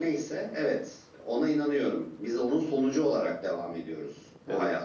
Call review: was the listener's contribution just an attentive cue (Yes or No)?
Yes